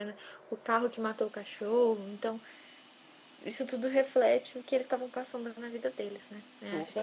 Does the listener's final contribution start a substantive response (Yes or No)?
Yes